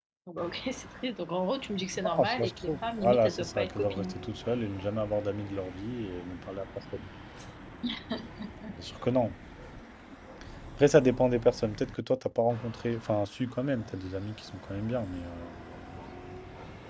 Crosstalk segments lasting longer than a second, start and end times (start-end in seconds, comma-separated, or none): 2.0-4.2